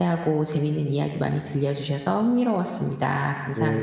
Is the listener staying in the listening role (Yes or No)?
No